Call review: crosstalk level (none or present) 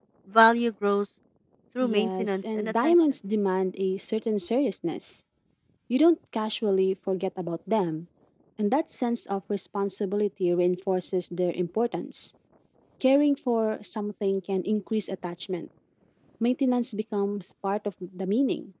present